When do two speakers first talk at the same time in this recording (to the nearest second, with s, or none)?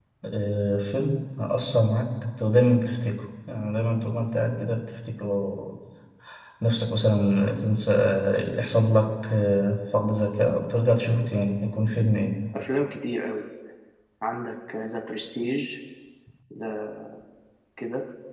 none